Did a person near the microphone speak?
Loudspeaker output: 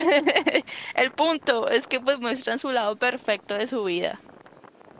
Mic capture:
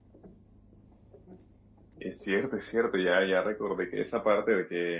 Yes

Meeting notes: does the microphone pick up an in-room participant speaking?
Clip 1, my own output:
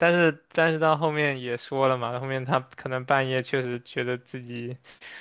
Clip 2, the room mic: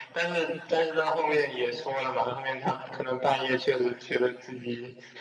No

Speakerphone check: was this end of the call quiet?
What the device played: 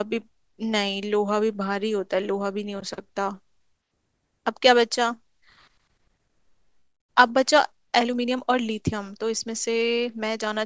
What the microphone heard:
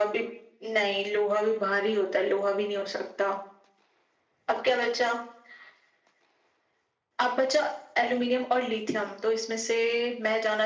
Yes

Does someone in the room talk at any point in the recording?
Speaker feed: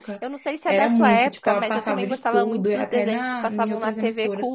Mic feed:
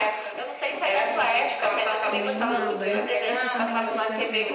Yes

